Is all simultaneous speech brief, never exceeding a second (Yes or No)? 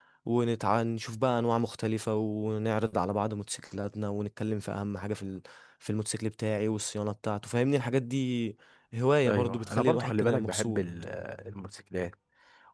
No